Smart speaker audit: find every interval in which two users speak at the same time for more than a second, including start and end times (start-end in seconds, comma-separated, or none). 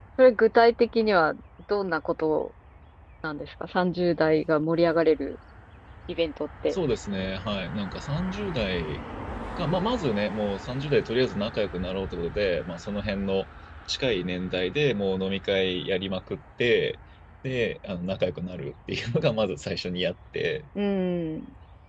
none